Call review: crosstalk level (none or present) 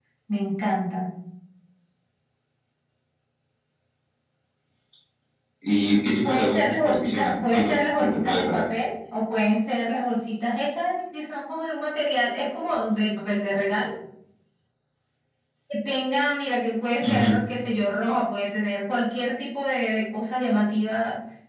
present